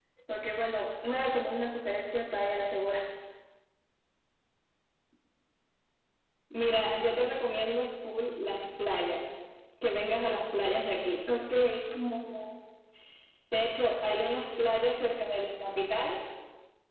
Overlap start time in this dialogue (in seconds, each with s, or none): none